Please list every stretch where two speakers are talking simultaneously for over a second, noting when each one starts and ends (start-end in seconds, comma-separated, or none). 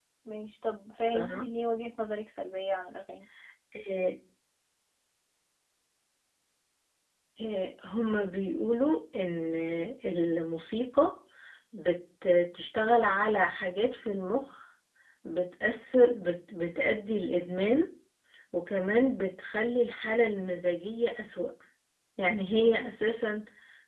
none